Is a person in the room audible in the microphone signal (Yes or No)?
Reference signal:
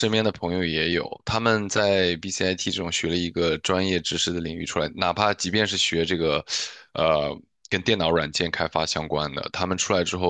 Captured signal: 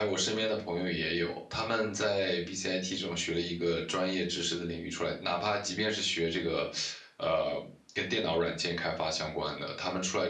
No